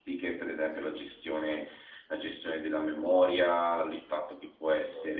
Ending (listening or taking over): listening